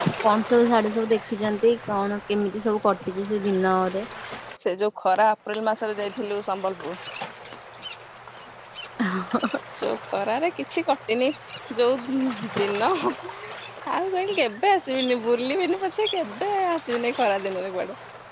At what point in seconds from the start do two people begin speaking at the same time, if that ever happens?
none

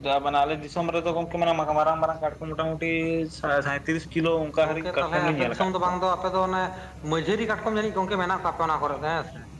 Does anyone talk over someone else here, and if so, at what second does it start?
4.6 s

